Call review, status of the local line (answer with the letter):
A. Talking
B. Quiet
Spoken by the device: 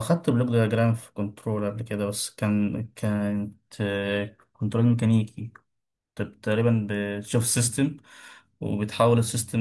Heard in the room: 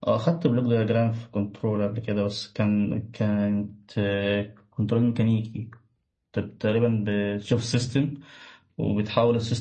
B